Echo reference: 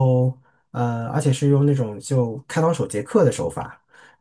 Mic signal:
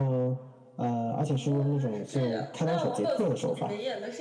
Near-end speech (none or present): present